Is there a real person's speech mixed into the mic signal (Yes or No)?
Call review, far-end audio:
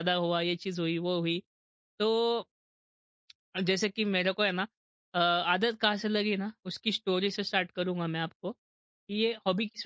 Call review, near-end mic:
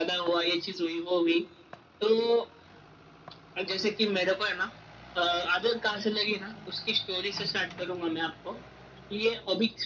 No